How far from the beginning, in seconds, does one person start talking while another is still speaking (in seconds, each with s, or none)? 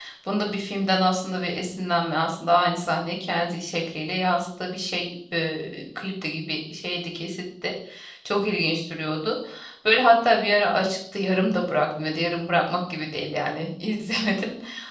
none